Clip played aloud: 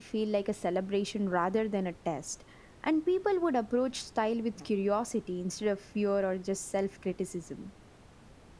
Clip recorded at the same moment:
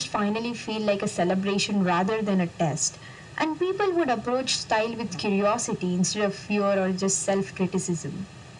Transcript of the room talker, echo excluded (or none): none